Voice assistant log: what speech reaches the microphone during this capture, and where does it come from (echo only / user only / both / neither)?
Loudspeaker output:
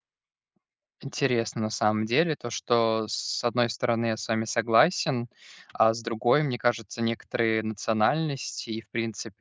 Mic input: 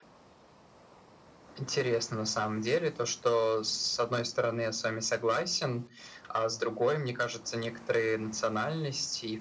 echo only